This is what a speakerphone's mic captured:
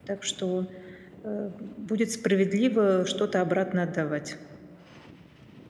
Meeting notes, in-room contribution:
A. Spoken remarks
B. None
A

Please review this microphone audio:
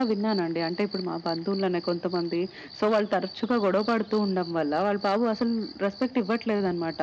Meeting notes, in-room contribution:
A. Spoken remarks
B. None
B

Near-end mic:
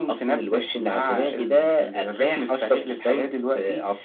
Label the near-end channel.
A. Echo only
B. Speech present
A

